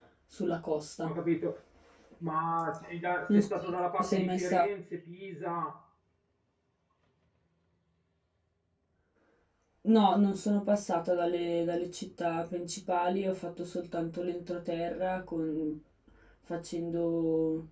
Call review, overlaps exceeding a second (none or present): present